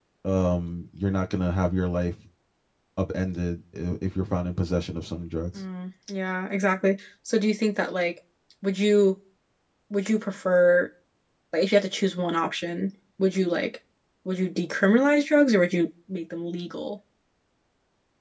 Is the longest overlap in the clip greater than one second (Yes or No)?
No